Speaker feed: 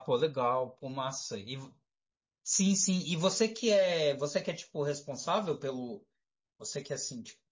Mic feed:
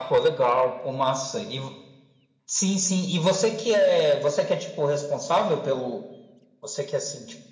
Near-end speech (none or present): none